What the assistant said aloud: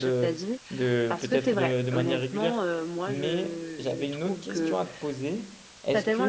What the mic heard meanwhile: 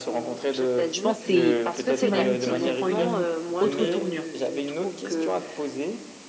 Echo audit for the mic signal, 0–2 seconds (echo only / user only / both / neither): both